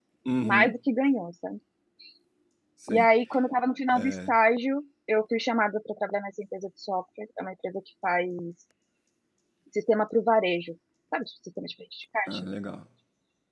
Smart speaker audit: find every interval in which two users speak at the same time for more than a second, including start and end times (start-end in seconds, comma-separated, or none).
none